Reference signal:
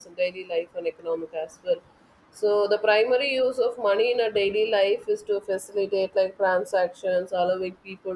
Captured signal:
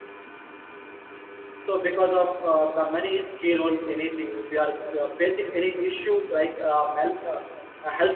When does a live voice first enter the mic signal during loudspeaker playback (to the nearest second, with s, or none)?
2 s